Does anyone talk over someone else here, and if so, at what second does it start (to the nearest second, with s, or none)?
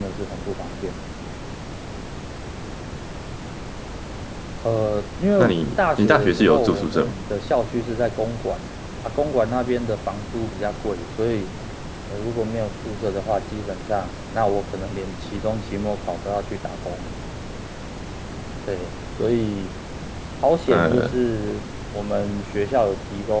5 s